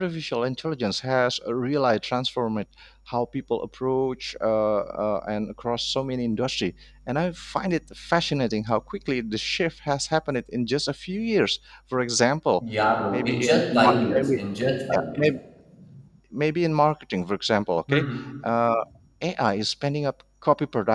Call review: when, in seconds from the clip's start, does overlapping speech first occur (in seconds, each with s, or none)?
13.1 s